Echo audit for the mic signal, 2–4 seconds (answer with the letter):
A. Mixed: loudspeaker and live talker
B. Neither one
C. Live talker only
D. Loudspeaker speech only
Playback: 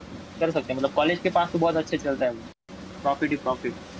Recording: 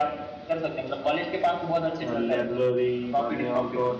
A